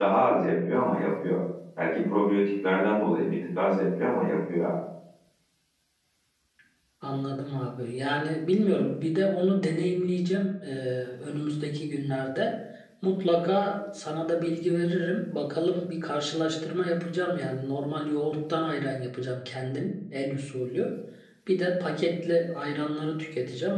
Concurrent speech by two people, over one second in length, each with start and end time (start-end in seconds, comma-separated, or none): none